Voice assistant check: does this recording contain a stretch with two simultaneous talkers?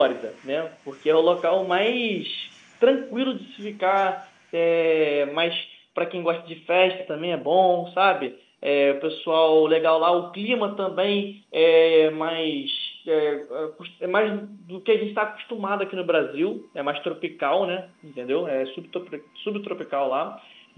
No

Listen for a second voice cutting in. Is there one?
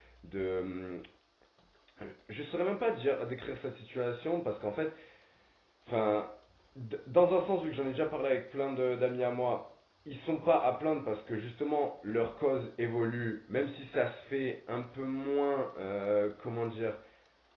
No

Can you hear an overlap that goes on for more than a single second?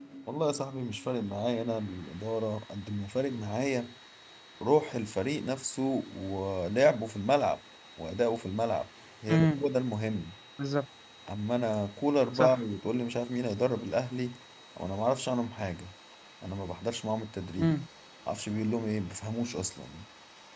No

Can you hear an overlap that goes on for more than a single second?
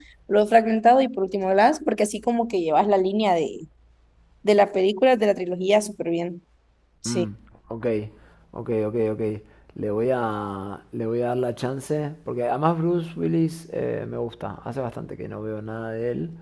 No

